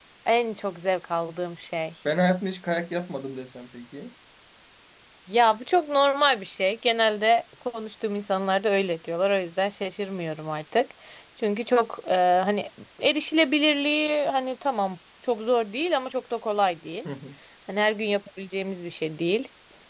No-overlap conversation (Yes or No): Yes